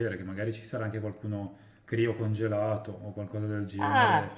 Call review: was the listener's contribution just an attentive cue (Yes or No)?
No